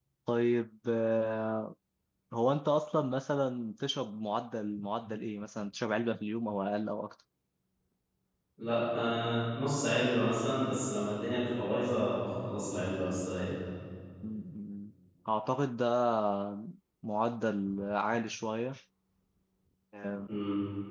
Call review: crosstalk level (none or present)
none